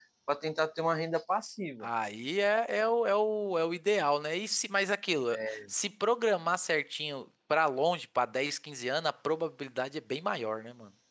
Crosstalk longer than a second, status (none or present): none